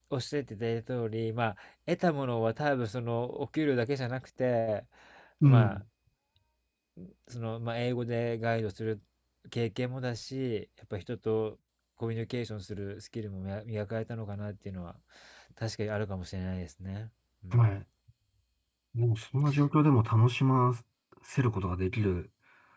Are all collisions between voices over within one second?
Yes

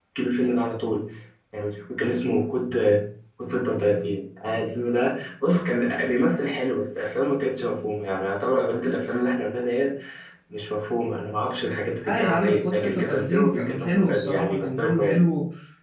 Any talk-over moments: Yes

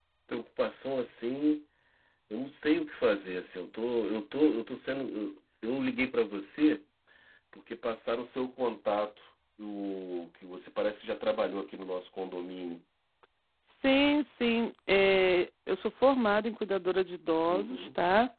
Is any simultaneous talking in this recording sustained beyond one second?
No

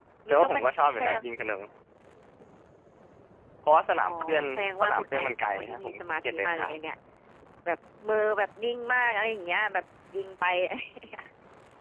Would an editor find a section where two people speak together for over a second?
Yes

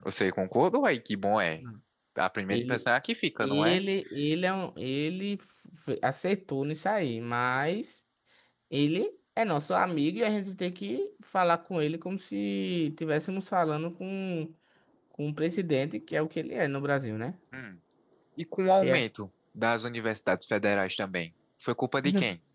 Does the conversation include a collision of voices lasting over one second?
No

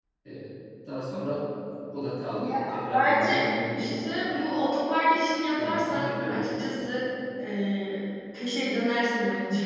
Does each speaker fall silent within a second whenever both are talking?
No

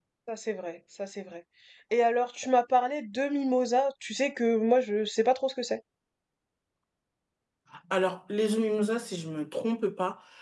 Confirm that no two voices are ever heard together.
Yes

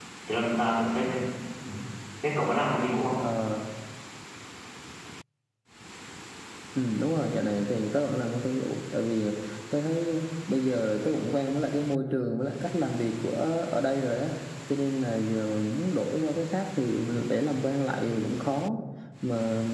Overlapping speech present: No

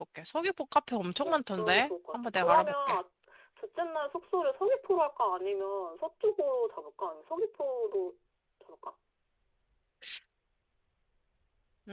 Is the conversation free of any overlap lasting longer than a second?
No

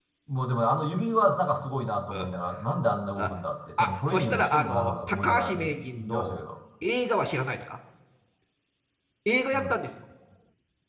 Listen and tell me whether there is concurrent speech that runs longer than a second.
Yes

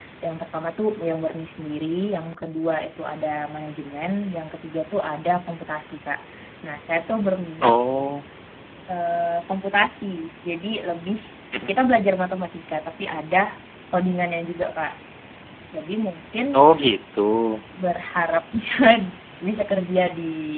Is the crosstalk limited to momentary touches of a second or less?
Yes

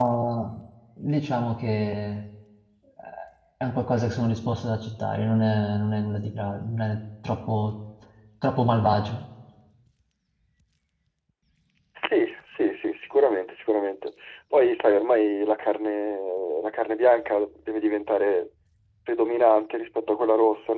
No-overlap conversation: Yes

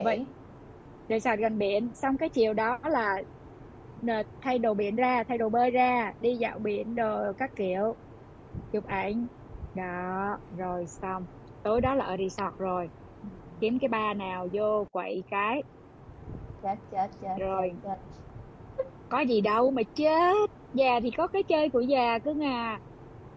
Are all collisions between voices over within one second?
Yes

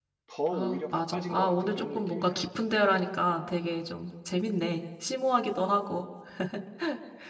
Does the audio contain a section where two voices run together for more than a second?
Yes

